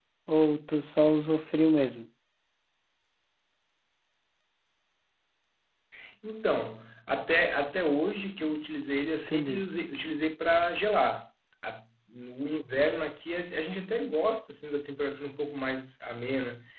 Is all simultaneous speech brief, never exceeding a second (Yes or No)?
Yes